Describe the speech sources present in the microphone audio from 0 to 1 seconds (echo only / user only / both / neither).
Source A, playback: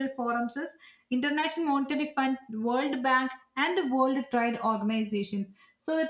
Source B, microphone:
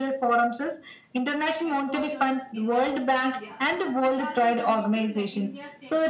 echo only